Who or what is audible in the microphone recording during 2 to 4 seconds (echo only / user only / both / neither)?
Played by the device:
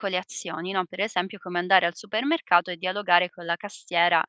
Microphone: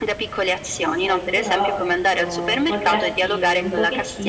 both